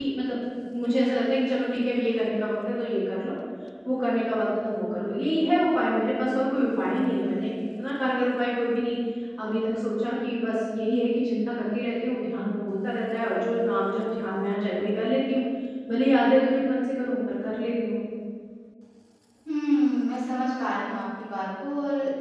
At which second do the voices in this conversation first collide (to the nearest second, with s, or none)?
none